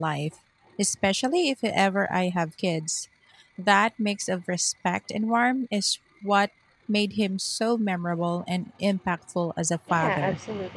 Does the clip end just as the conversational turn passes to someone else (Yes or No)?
Yes